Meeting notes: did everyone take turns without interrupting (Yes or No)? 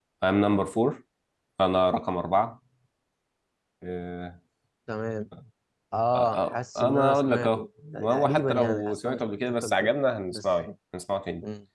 No